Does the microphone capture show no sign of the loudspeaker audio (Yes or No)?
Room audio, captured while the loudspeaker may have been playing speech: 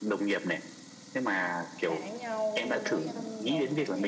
No